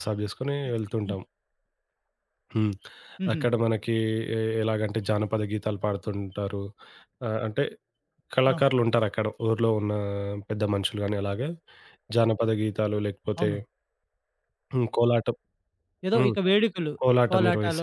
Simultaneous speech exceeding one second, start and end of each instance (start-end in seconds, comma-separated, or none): none